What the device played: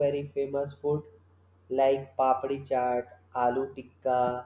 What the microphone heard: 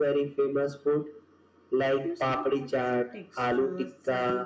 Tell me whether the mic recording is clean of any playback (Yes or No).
No